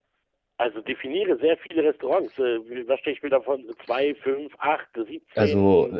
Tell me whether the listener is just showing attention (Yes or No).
No